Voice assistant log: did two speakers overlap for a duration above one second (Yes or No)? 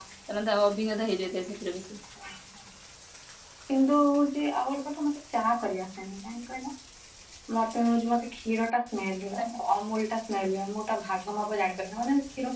No